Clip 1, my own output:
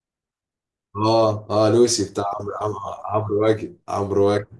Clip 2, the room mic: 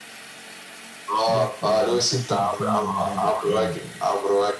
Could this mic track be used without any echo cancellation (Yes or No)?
No